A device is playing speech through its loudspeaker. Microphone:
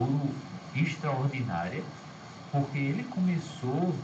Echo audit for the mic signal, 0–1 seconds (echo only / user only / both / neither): echo only